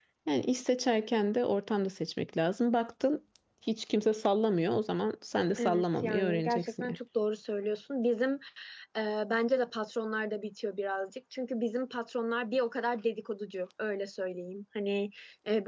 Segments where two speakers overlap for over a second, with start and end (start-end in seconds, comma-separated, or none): 5.6-7.0